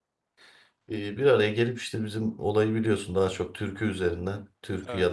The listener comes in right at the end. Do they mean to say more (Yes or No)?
No